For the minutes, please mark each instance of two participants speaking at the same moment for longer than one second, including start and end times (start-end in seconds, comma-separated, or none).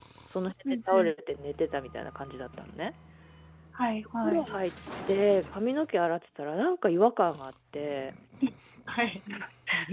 none